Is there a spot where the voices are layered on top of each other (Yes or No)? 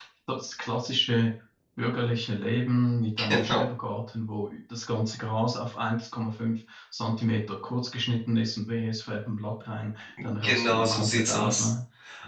Yes